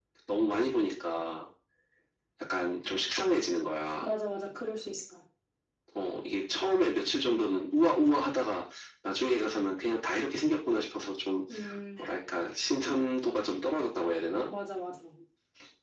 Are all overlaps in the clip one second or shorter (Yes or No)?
Yes